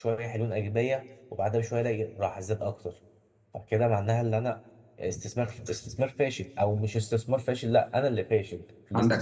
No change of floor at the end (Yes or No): No